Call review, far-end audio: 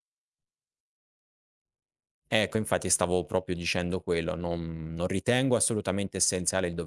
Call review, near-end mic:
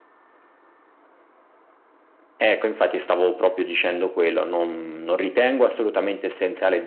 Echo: present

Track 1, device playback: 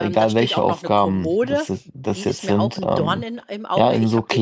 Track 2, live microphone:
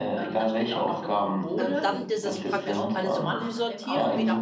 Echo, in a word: present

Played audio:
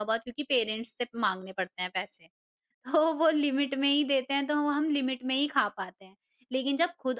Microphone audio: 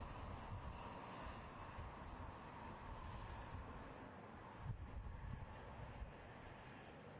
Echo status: none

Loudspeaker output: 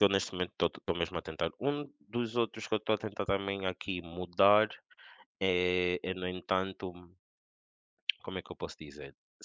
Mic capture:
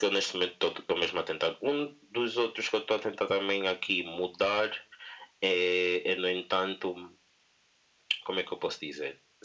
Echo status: present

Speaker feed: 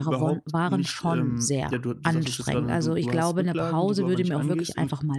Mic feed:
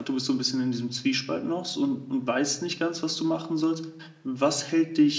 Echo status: none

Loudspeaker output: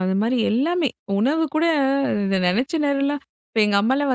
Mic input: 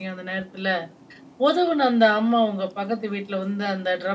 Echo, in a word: none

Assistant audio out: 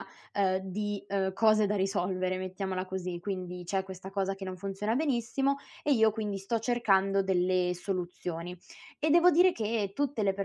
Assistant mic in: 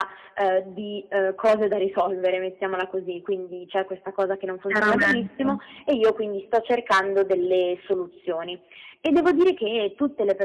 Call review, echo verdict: present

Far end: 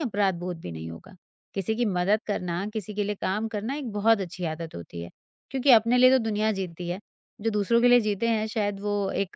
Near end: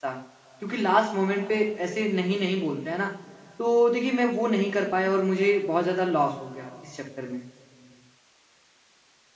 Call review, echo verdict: none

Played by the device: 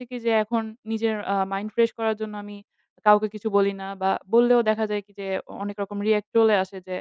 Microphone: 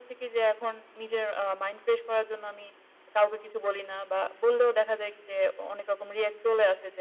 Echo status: present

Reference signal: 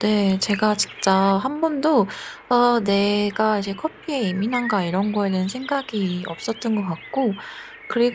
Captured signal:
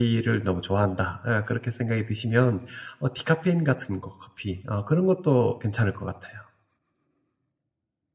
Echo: none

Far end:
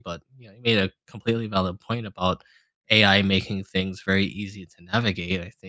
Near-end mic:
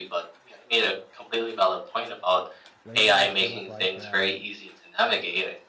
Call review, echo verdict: present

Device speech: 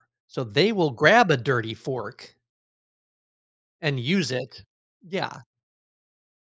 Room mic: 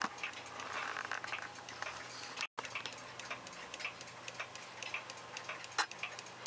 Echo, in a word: none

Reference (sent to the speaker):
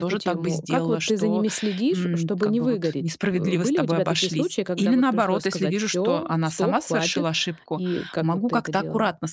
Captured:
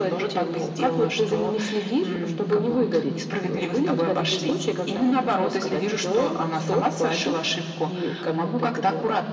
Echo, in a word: present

